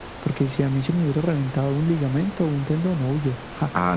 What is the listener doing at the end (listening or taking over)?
taking over